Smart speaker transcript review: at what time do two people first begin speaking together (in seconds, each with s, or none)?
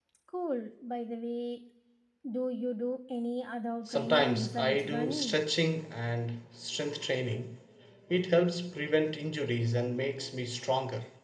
3.9 s